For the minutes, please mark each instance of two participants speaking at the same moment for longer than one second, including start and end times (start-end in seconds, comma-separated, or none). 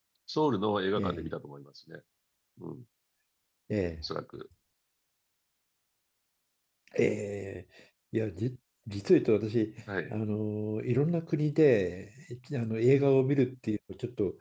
none